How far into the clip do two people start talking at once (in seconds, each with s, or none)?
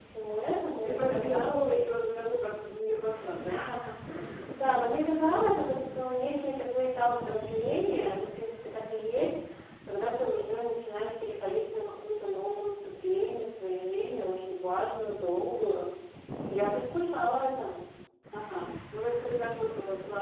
0.5 s